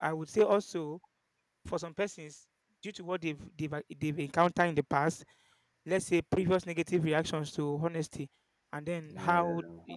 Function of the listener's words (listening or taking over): listening